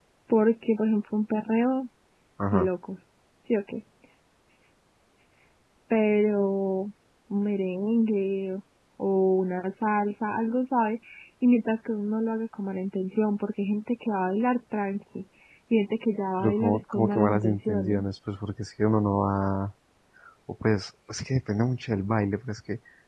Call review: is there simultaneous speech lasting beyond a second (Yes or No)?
Yes